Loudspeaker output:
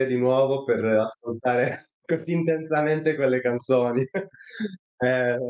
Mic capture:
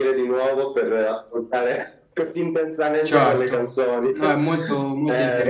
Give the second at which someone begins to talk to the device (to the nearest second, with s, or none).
3 s